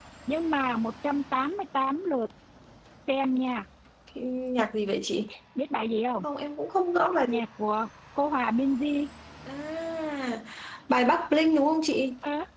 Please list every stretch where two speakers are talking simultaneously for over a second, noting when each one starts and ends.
none

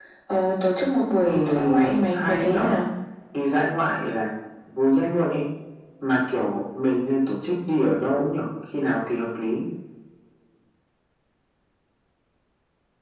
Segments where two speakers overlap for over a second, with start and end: 1.2-2.7

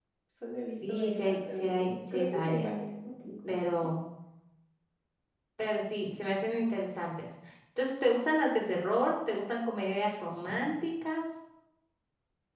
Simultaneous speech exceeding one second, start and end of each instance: 0.9-2.7

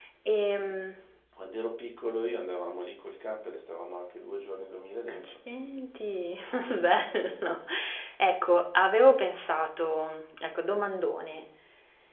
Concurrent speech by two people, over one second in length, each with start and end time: none

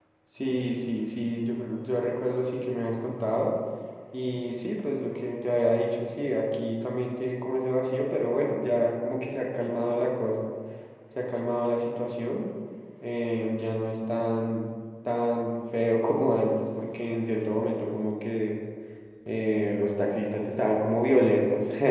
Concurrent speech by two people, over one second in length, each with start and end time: none

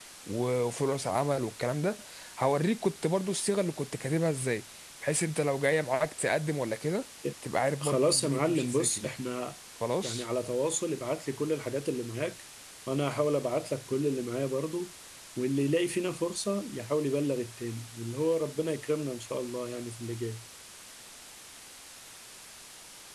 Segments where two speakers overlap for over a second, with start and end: 7.8-9.1

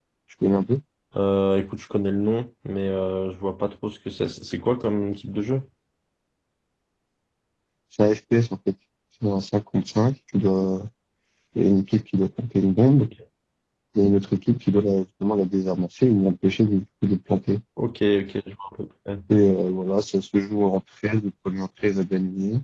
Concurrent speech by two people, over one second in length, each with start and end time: none

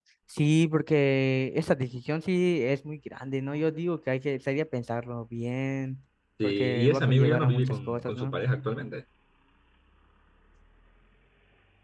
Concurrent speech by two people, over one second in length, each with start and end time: 6.4-8.4

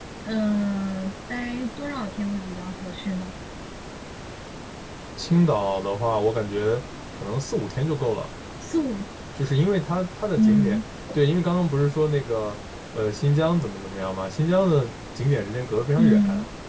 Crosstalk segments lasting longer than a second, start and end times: none

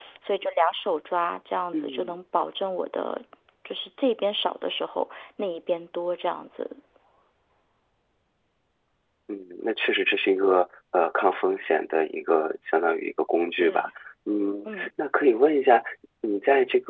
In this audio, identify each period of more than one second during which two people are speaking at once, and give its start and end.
none

